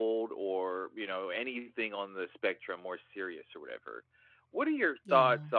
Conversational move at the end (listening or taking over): listening